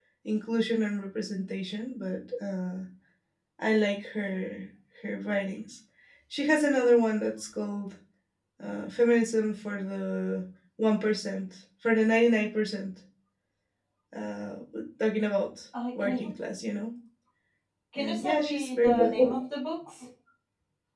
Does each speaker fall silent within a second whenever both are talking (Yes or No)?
No